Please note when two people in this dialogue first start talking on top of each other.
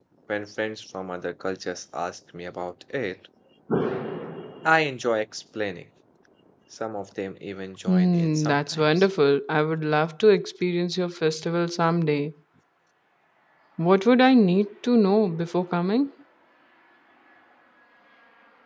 8 s

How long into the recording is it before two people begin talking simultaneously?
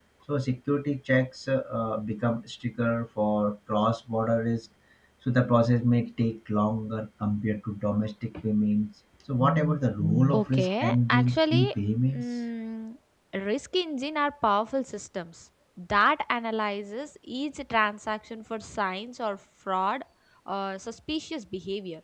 10 s

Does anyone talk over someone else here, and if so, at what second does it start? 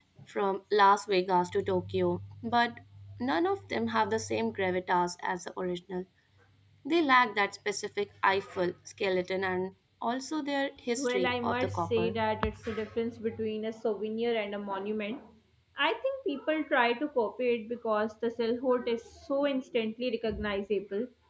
11 s

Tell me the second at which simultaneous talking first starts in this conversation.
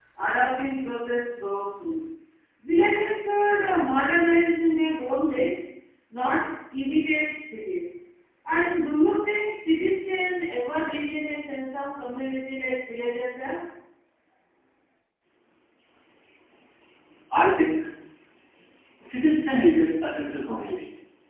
none

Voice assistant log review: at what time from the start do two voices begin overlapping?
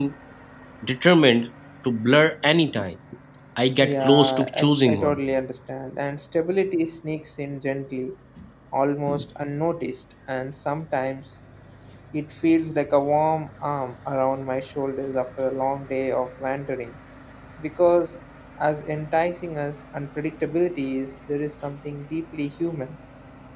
4 s

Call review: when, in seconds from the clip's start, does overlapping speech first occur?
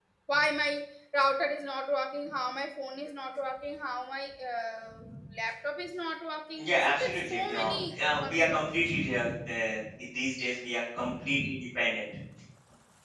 7 s

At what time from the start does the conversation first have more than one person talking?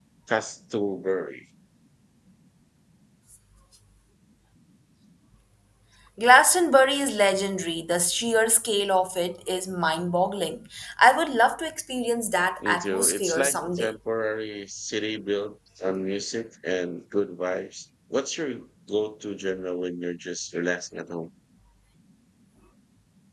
13 s

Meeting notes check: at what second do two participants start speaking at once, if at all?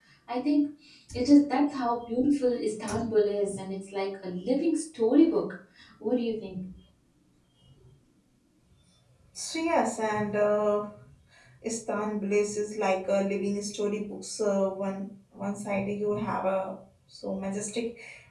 none

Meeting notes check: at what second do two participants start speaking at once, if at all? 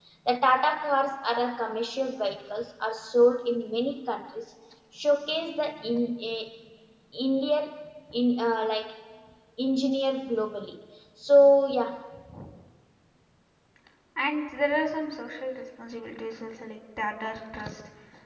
none

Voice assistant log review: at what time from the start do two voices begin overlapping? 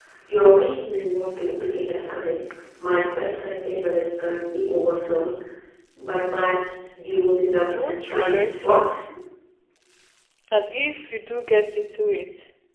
8 s

